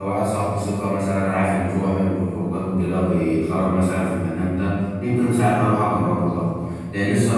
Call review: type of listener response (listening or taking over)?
listening